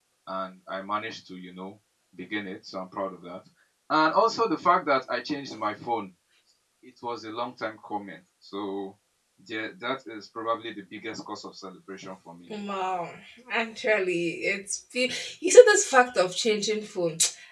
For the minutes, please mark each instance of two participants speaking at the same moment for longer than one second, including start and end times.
none

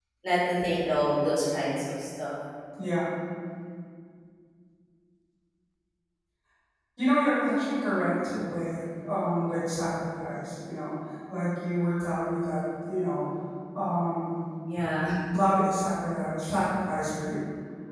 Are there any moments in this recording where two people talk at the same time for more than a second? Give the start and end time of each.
none

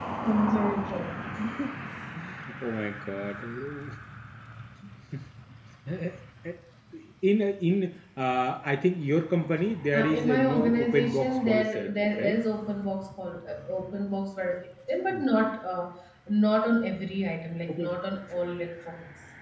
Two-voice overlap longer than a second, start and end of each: 9.9-12.4

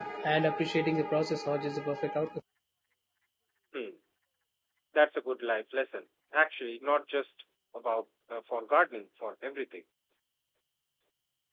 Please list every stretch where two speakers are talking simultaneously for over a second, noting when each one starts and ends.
none

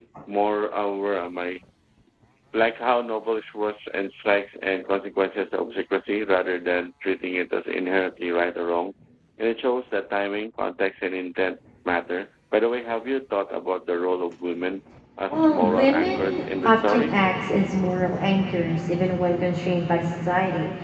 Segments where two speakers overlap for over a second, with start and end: 15.3-17.2

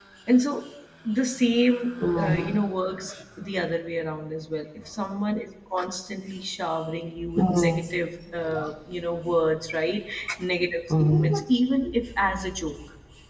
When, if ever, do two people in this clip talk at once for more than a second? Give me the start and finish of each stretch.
none

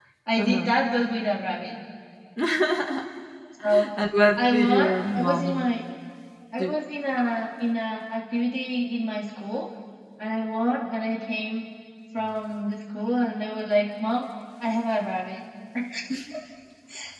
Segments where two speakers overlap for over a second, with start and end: 4.4-5.7

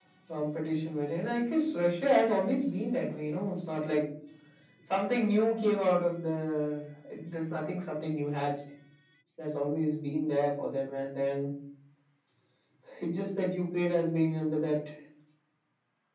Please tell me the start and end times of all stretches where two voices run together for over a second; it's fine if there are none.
none

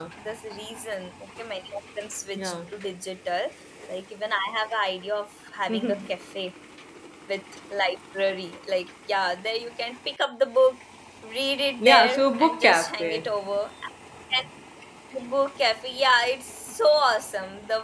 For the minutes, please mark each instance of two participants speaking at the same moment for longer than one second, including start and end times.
11.8-13.3

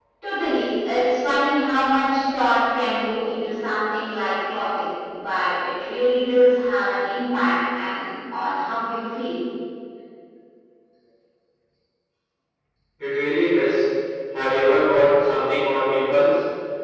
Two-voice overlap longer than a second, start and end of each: none

